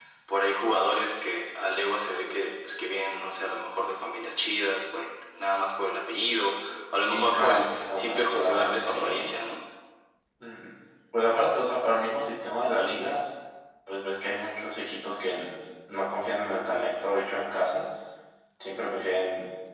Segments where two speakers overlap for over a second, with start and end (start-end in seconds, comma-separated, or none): 7.0-9.2